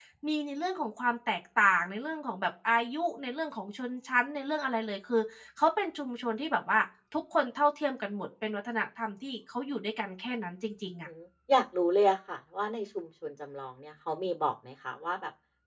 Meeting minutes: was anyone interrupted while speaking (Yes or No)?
No